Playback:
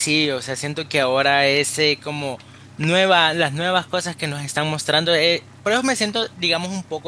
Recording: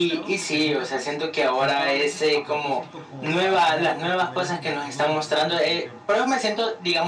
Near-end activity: present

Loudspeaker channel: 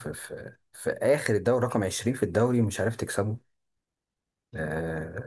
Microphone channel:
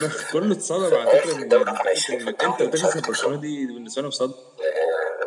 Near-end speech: present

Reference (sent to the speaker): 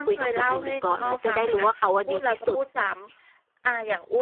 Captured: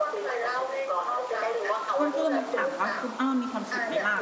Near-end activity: present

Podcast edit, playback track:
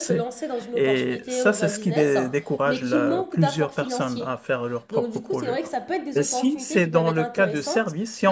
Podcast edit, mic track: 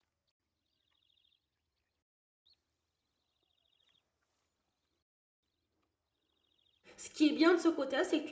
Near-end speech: present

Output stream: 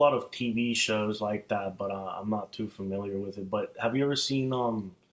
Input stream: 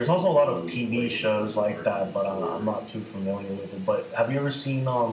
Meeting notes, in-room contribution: present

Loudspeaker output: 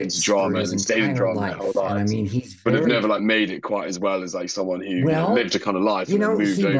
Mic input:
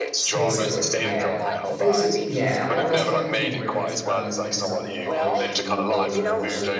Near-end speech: present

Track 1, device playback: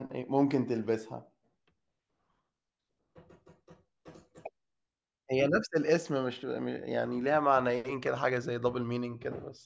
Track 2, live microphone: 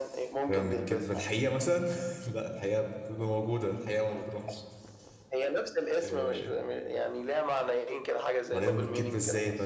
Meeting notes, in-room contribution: present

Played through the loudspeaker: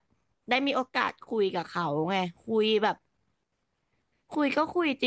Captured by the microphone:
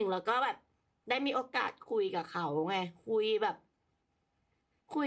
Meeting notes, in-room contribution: none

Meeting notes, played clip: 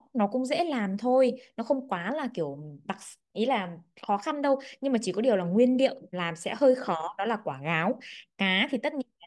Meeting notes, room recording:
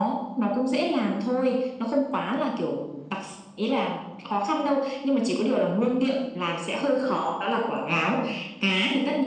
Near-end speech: none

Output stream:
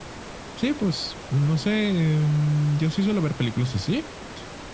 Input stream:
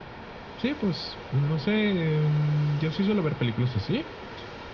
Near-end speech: none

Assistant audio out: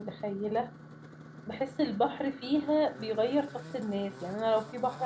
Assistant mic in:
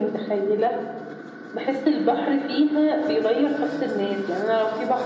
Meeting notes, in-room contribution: none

